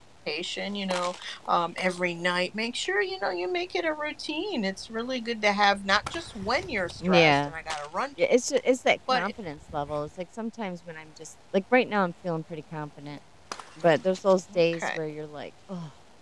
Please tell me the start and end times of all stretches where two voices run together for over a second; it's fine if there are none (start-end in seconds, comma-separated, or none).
none